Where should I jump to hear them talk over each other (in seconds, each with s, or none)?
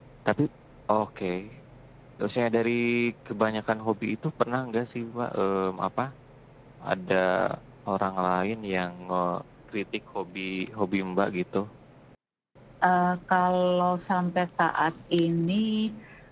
none